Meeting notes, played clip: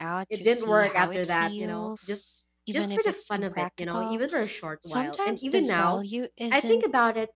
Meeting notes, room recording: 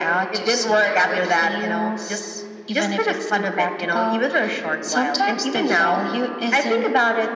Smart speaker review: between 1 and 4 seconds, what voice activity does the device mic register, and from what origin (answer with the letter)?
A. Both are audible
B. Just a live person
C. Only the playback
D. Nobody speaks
C